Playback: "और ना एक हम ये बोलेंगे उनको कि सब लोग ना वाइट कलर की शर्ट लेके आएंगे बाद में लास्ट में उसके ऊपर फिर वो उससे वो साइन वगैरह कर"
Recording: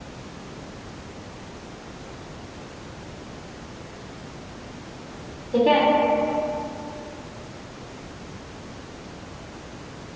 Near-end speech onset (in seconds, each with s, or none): 5.5 s